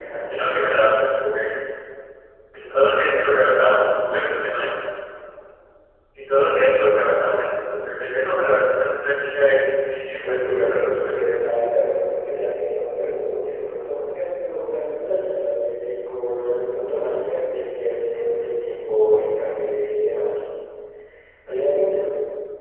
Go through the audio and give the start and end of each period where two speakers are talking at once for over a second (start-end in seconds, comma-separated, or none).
10.2-11.5